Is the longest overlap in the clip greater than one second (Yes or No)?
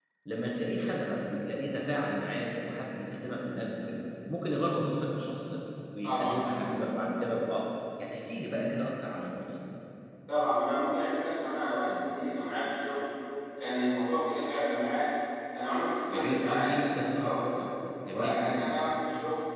Yes